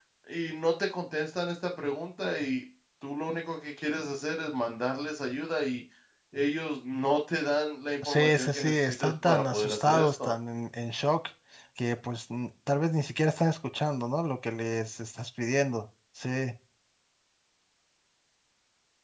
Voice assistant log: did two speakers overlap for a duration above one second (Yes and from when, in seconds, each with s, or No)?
Yes, from 8.0 s